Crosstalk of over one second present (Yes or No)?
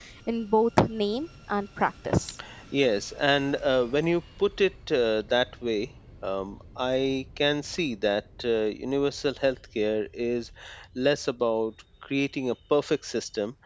No